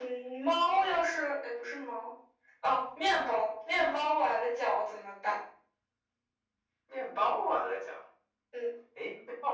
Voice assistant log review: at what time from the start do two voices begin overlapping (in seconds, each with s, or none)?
none